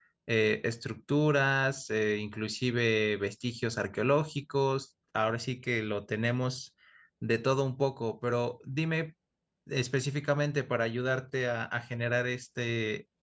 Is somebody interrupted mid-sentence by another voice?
No

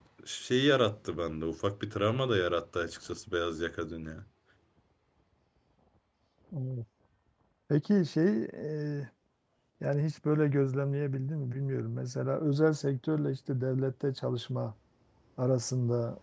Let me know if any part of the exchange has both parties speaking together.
No

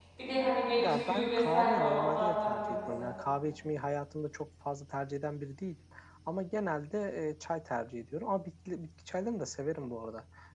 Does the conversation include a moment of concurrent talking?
Yes, from 0.7 s

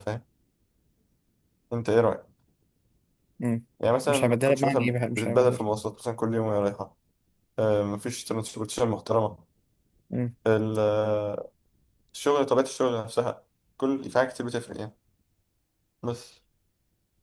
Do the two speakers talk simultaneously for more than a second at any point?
Yes, from 4.0 s

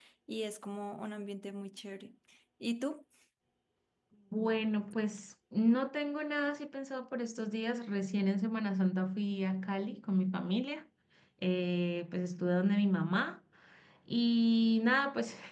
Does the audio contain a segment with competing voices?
No

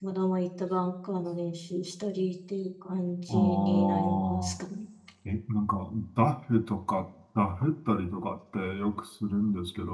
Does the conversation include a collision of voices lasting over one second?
Yes, from 3.3 s

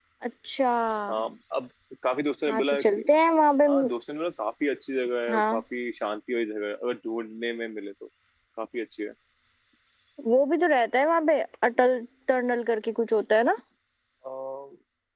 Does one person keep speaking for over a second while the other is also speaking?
No

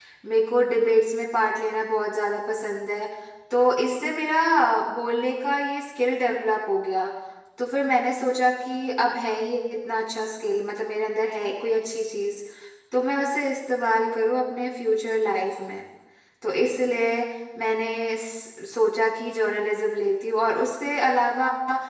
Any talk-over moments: No

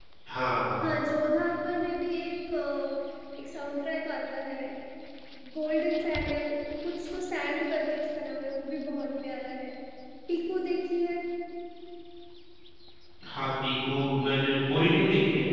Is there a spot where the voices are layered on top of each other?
No

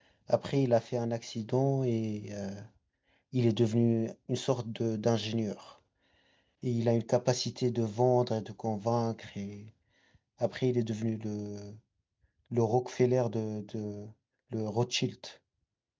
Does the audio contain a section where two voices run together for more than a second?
No

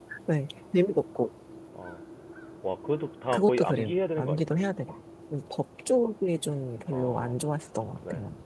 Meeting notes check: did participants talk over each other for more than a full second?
Yes, from 3.3 s

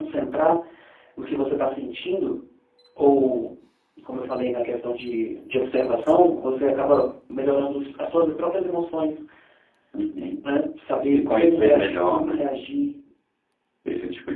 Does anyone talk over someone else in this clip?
Yes, from 11.0 s

